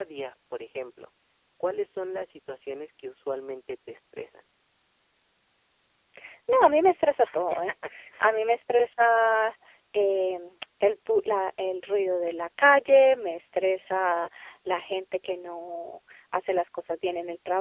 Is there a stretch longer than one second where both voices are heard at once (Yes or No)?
No